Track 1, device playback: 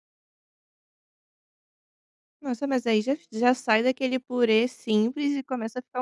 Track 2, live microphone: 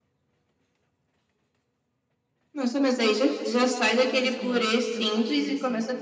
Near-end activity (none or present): present